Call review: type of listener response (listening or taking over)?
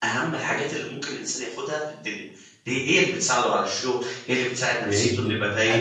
taking over